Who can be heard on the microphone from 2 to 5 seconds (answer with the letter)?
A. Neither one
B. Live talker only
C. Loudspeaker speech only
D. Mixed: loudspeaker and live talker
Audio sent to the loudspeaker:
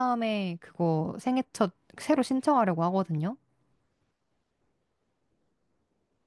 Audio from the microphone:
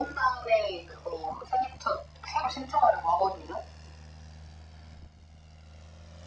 C